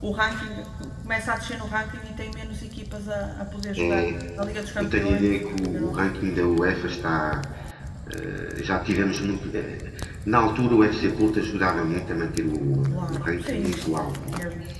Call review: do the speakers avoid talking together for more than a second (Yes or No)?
No